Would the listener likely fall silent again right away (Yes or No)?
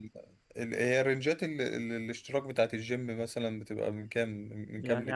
No